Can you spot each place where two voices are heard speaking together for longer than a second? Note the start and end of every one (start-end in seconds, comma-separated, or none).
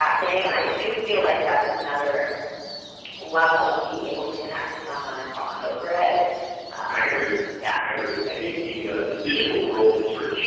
none